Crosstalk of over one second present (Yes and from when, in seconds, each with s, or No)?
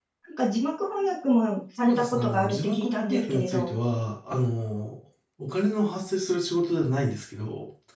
Yes, from 1.8 s